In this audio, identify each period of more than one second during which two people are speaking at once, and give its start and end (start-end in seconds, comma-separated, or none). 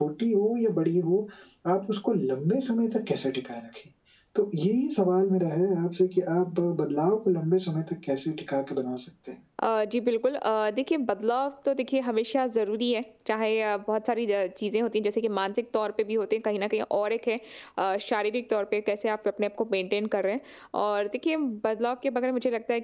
none